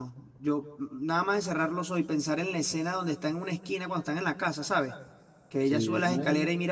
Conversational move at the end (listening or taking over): listening